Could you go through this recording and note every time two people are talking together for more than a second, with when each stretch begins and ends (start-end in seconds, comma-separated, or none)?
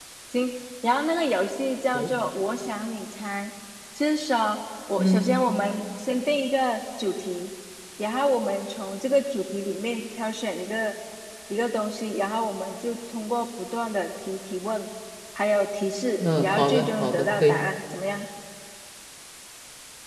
16.2-17.6